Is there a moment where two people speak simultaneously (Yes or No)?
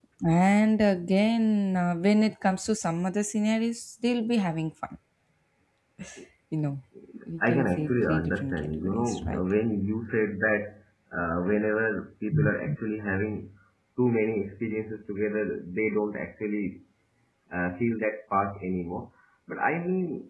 Yes